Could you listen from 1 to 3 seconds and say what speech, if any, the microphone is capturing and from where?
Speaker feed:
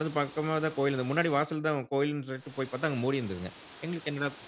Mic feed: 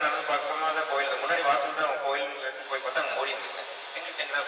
echo only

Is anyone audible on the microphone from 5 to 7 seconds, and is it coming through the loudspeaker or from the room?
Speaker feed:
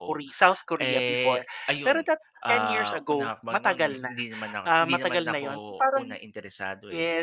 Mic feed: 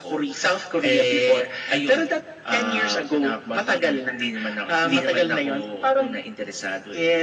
echo only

